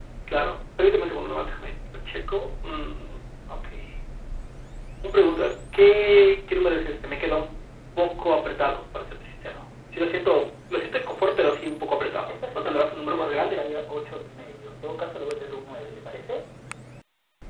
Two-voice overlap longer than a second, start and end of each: 12.0-13.6

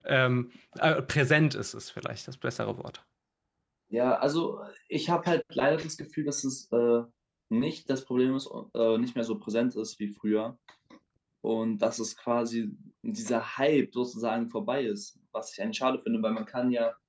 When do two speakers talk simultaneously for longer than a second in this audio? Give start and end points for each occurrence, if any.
none

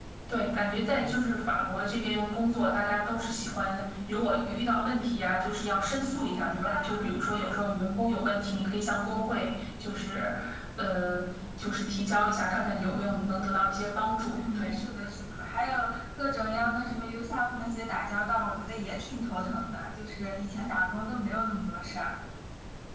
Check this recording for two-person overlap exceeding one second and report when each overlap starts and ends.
none

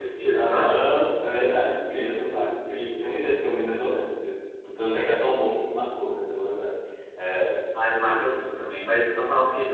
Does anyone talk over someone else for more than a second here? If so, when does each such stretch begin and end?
1.6-3.2

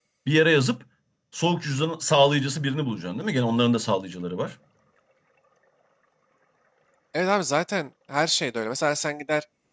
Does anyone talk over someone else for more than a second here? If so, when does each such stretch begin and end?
none

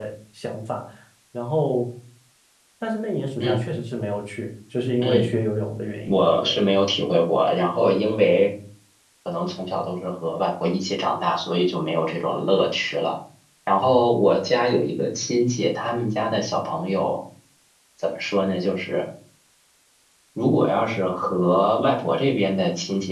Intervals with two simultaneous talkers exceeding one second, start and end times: none

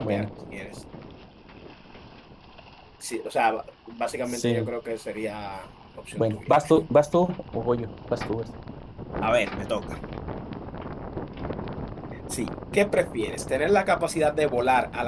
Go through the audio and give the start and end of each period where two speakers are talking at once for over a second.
none

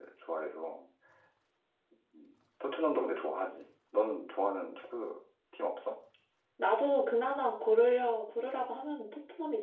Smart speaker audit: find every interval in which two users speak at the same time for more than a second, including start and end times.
none

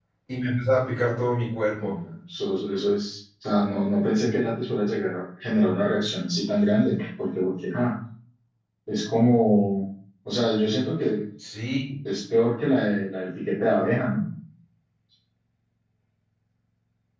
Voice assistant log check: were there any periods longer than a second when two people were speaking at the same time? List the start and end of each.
none

